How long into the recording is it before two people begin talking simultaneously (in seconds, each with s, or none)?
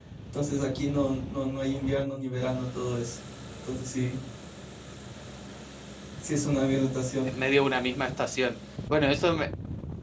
none